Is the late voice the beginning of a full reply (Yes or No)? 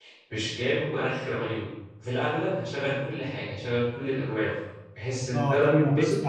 Yes